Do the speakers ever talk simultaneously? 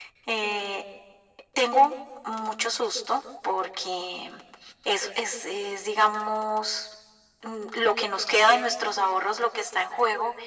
No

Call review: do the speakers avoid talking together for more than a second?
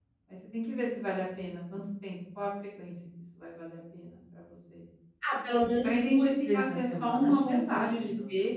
No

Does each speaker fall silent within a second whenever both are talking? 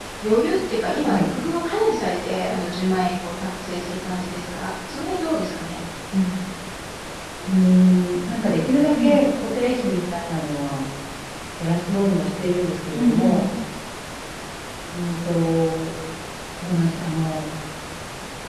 Yes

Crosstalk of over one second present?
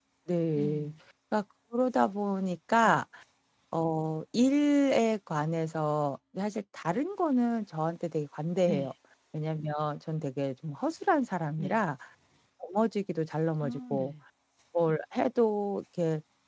No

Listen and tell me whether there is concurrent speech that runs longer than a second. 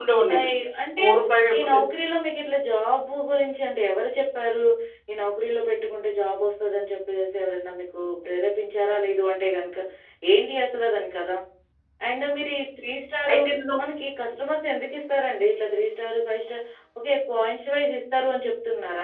No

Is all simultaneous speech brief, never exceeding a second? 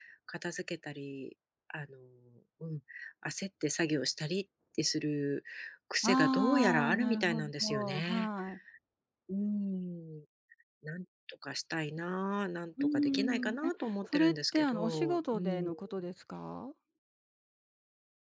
No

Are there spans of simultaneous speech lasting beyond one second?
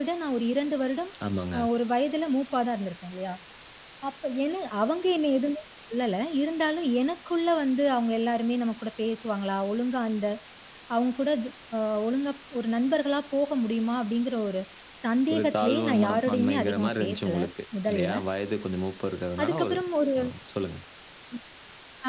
Yes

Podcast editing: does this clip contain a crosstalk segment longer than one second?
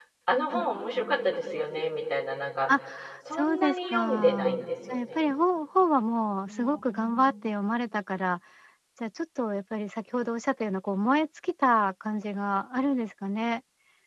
Yes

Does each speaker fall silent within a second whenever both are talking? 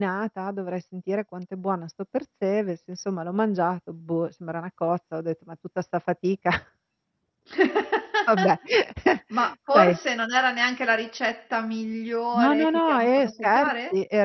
No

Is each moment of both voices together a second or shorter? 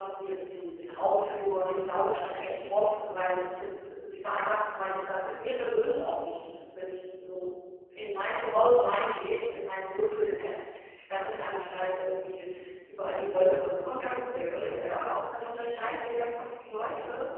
No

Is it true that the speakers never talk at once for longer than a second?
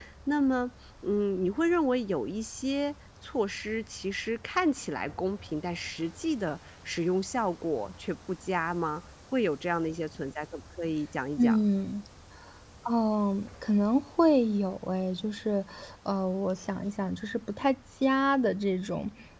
Yes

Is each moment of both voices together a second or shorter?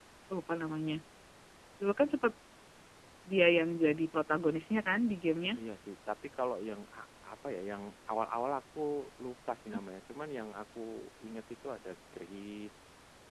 Yes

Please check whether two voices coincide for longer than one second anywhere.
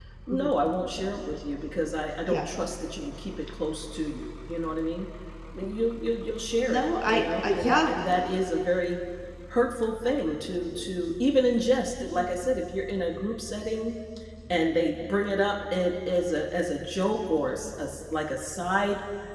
Yes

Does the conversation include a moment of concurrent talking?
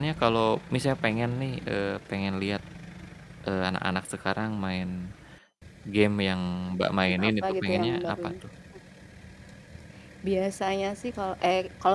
Yes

